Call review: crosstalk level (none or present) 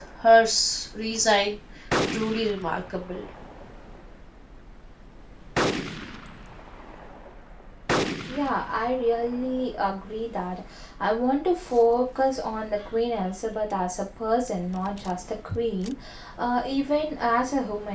none